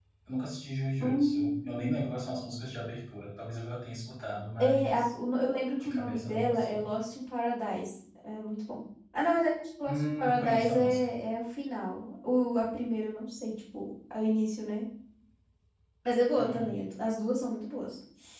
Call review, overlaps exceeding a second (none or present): present